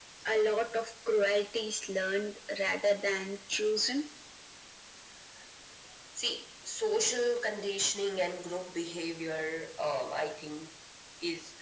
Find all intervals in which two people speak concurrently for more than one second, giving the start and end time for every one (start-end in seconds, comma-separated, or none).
none